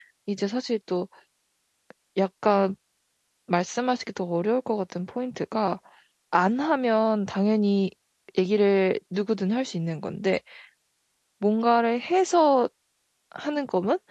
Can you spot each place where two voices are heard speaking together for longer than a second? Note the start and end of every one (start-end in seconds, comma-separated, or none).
none